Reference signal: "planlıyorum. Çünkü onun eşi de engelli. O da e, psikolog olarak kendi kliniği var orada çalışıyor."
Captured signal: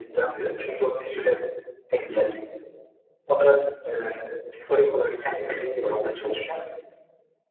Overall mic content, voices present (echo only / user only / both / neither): echo only